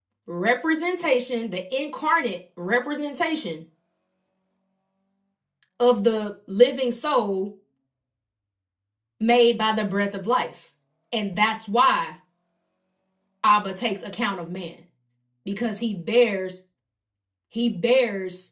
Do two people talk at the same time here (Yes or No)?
No